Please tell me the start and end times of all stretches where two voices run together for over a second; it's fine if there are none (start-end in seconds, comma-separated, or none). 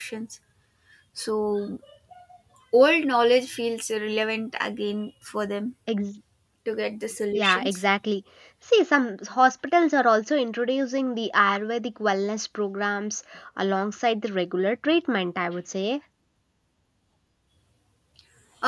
none